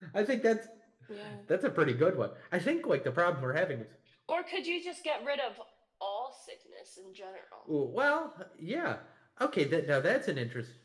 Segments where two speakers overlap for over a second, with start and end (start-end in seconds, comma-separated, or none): none